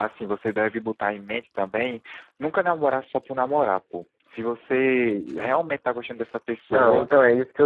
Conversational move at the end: taking over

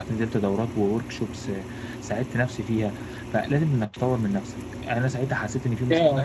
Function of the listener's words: taking over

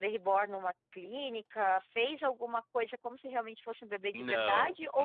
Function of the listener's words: taking over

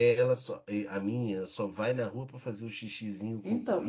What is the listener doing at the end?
listening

